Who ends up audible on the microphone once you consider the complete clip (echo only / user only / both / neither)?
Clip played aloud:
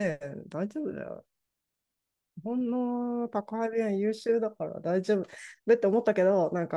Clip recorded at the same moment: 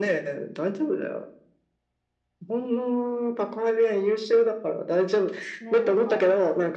both